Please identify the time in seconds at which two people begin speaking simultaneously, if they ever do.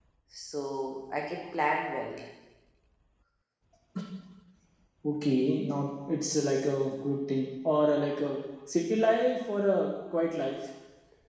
none

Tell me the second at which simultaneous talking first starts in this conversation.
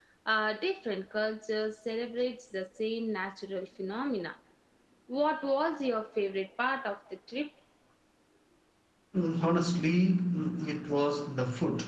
none

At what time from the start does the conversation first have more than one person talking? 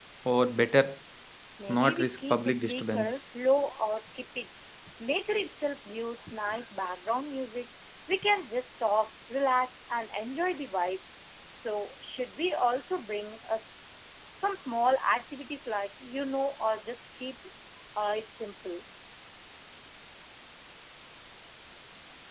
1.7 s

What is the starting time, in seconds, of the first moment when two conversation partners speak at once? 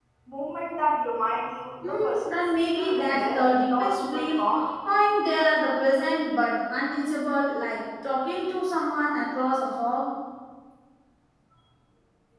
1.8 s

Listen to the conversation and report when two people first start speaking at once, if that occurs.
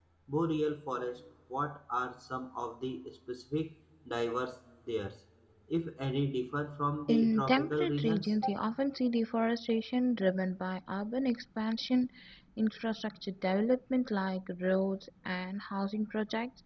7.1 s

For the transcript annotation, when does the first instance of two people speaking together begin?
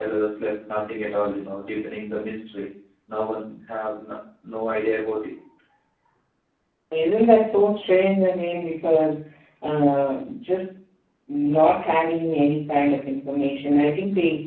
none

